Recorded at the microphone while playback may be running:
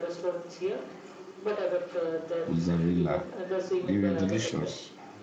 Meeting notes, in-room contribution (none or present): present